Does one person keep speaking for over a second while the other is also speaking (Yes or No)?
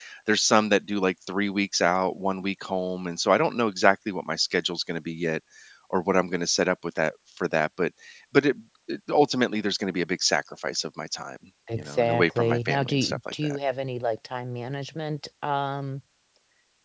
Yes